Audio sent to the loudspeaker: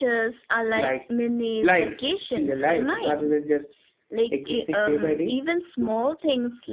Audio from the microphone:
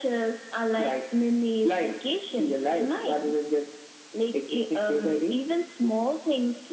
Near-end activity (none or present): none